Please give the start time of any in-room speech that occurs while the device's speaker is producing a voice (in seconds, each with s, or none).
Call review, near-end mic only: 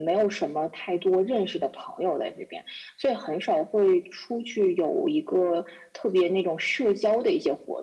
none